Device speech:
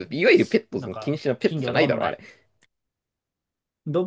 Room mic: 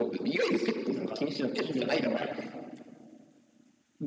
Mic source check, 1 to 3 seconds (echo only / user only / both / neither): echo only